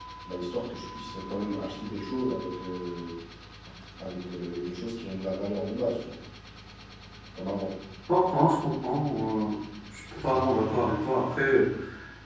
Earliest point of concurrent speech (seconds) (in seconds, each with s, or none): none